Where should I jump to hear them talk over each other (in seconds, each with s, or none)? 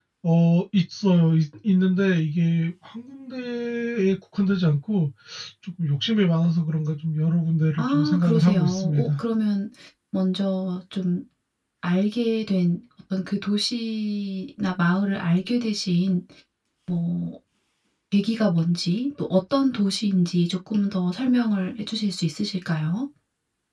7.8 s